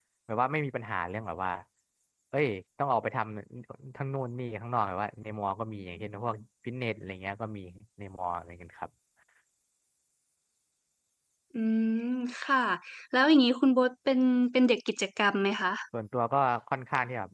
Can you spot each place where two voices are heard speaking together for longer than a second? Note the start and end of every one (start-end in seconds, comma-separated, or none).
none